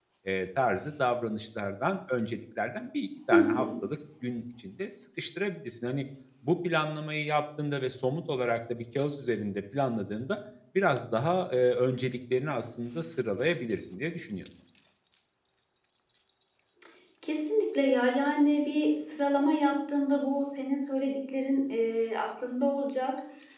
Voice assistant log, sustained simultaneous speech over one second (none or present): none